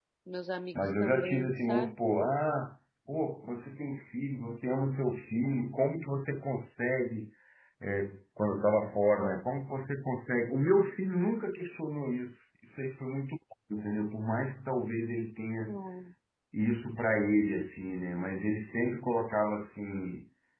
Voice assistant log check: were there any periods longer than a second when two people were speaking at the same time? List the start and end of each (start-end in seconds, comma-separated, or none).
0.7-1.9